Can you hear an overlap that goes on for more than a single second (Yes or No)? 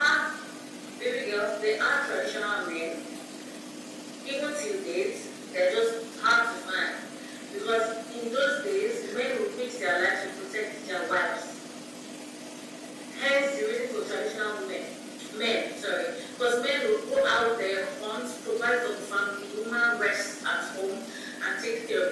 No